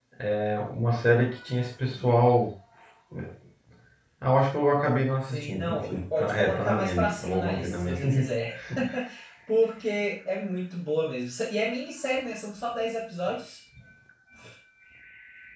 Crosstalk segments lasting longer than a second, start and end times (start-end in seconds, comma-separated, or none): 5.3-8.3